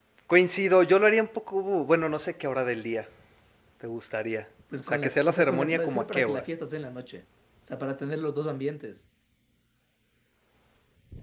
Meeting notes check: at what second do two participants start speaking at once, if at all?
4.7 s

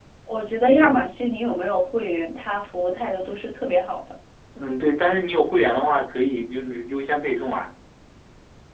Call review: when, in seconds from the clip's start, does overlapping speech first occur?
none

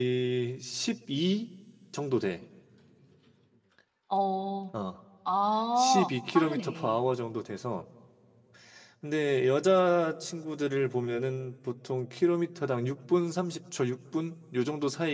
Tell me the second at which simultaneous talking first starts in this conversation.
5.8 s

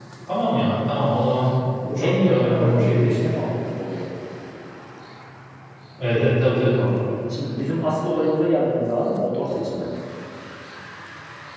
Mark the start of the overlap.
1.7 s

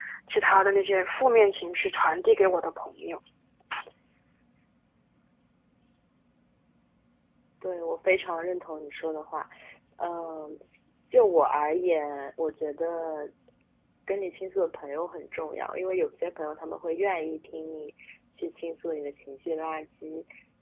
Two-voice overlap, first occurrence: none

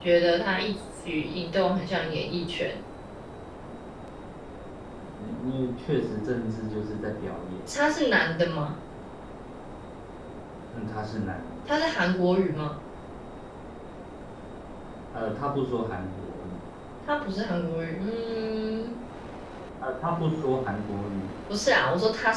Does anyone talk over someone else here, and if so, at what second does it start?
none

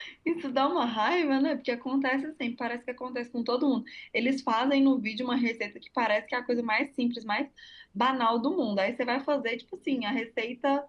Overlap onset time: none

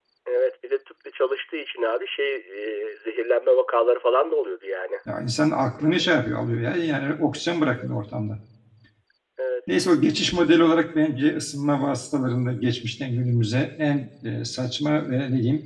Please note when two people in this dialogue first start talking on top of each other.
none

